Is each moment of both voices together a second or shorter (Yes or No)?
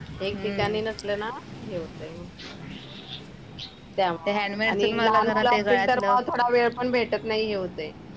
No